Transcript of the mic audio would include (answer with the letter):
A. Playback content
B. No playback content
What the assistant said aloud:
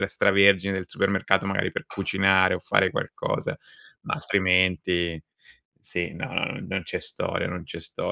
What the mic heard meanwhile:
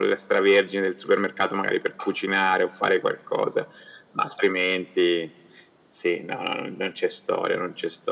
A